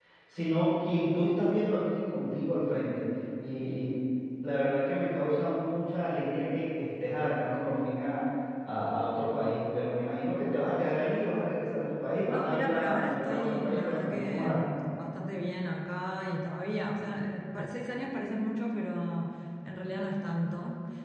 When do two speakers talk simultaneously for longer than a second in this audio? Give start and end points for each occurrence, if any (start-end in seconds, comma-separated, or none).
12.3-14.6